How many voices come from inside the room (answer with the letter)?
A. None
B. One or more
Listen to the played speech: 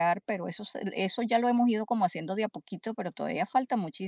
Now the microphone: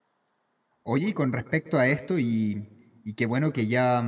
B